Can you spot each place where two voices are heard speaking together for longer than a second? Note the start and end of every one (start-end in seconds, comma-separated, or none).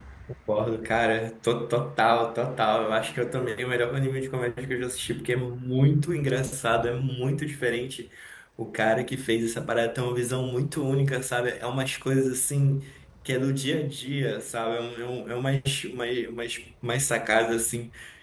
none